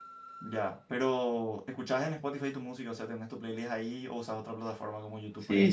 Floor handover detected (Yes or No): Yes